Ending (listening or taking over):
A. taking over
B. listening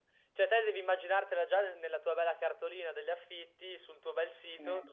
B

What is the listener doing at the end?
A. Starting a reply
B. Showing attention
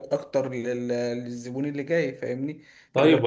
A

